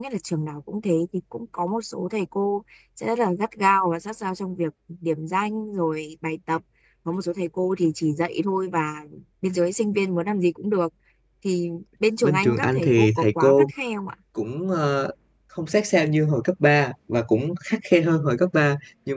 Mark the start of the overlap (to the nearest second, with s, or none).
12 s